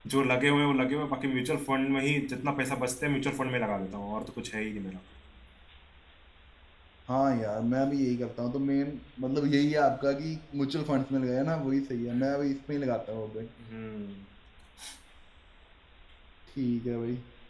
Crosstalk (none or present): none